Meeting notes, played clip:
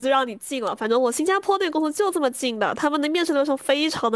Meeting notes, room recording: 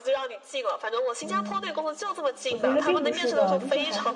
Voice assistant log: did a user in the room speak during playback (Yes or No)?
Yes